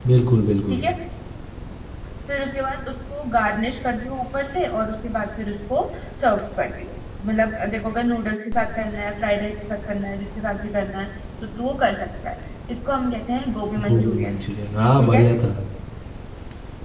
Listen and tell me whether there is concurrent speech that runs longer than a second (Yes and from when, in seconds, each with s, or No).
No